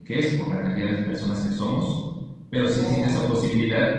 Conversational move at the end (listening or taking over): listening